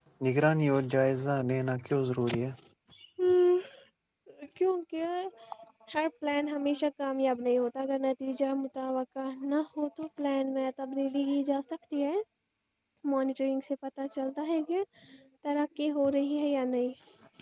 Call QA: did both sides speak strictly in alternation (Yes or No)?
Yes